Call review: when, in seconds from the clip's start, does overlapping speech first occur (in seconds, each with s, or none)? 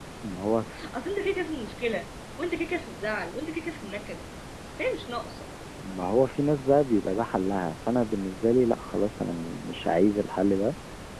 none